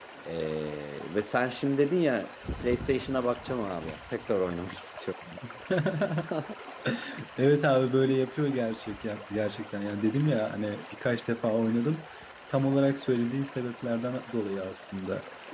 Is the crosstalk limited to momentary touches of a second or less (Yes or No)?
Yes